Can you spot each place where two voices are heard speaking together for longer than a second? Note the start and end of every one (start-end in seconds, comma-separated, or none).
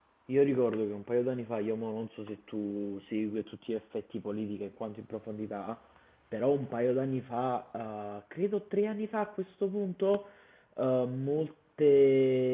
none